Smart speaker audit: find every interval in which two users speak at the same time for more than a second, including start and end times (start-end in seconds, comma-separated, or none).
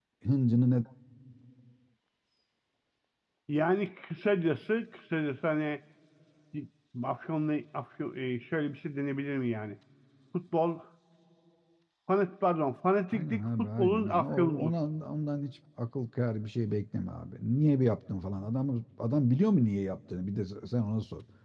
13.1-14.7